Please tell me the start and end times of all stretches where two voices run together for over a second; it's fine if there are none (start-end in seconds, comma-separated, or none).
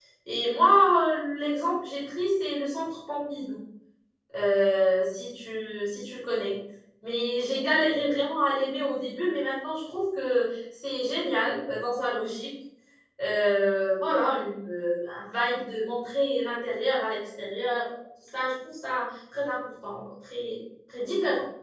none